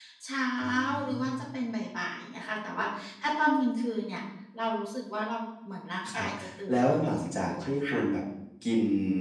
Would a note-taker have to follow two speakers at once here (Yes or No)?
Yes